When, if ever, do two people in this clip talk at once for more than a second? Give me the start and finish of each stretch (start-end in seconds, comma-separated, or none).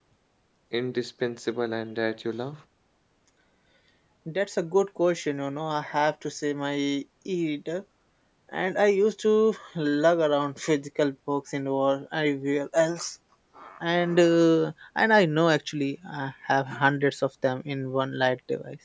none